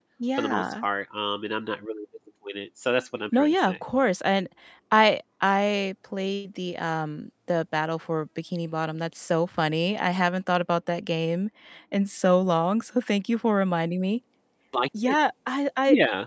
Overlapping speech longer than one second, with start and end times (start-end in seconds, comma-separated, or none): none